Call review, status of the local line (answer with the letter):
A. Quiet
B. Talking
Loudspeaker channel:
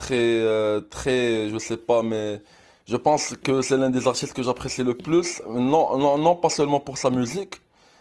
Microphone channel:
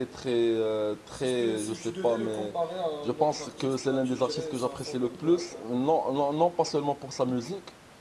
B